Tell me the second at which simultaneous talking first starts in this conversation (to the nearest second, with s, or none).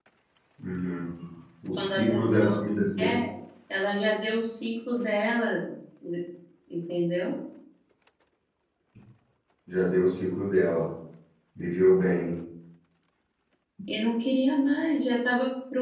2 s